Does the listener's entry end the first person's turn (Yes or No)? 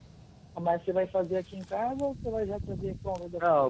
Yes